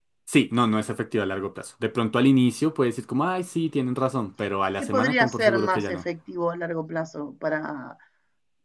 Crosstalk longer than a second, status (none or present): present